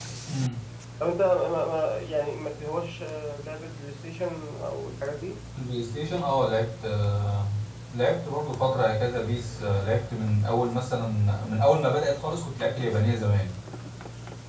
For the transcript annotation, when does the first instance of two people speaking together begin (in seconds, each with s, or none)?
none